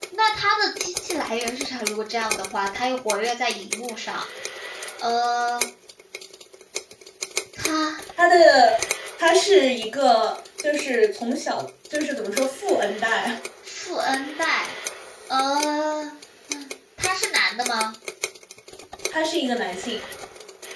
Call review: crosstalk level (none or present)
none